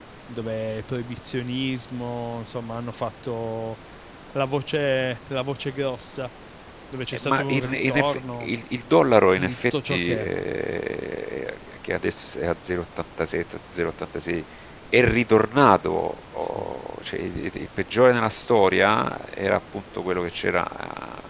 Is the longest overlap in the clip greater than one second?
Yes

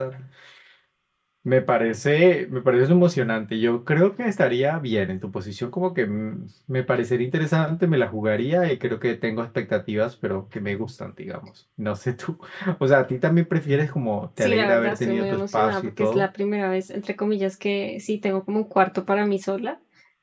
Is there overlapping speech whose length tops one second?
Yes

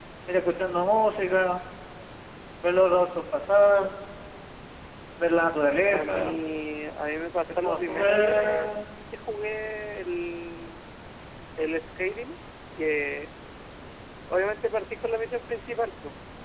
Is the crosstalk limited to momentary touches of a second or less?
No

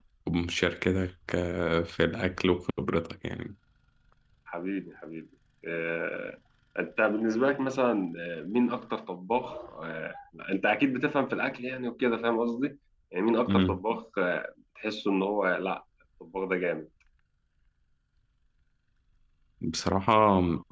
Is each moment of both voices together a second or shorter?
Yes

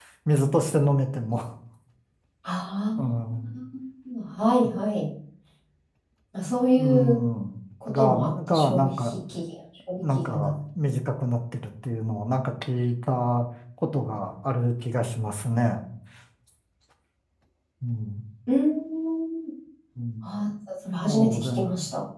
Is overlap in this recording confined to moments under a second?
No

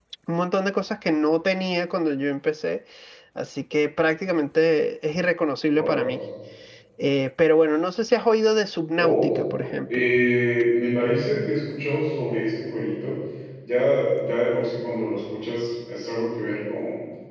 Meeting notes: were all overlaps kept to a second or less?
Yes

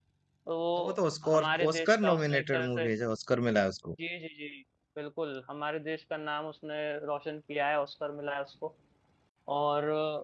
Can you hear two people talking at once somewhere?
Yes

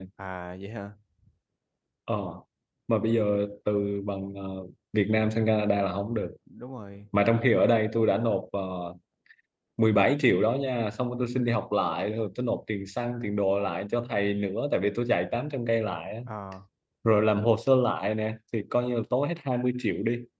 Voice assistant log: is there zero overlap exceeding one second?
Yes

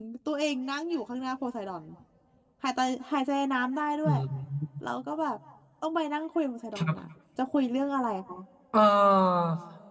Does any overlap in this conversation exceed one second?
No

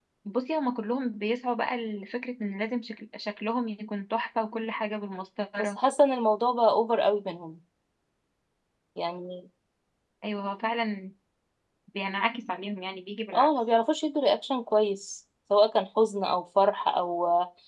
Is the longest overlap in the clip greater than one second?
No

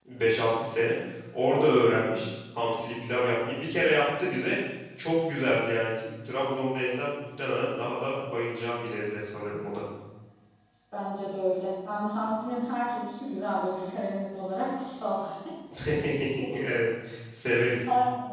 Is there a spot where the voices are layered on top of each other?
No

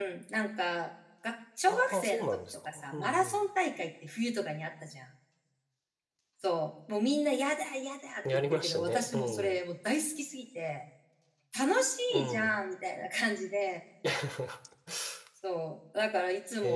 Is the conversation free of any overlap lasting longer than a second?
No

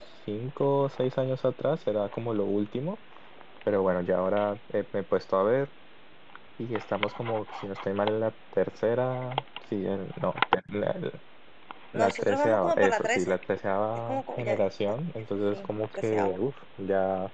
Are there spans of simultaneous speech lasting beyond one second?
Yes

